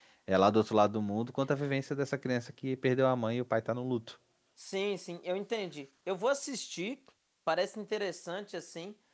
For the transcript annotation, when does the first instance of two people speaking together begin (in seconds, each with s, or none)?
none